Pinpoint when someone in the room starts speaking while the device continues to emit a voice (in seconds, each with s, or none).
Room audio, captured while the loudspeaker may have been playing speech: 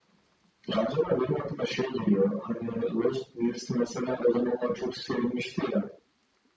none